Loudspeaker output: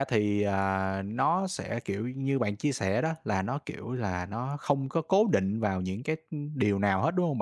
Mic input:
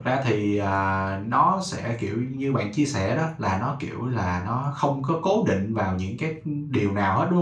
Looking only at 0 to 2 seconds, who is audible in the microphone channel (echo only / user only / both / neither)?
echo only